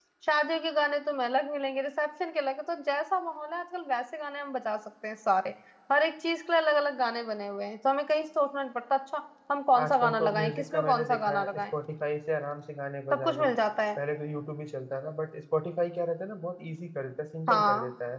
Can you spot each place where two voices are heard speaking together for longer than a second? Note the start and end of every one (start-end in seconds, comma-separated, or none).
9.8-11.6